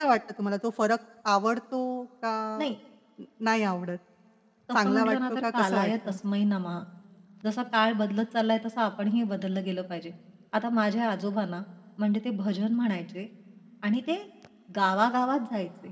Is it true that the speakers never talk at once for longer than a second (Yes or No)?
No